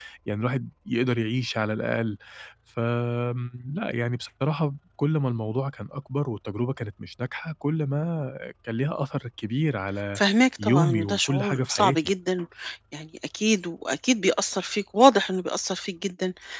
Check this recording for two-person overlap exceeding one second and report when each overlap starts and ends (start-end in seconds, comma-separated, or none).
10.6-12.1